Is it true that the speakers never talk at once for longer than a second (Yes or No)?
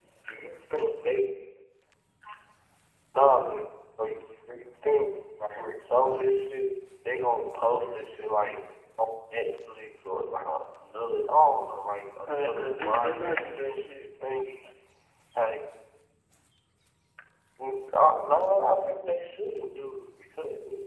No